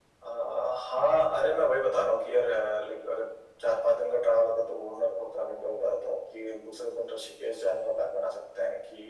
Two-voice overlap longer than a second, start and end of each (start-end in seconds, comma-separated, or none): none